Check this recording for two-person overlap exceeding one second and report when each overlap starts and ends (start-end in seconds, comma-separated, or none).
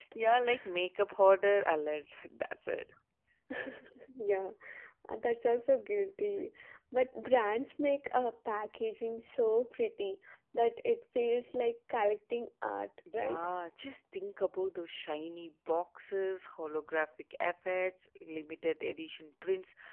none